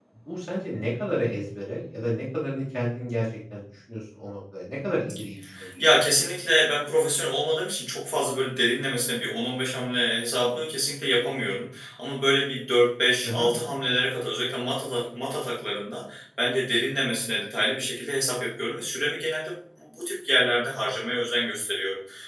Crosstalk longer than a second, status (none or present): none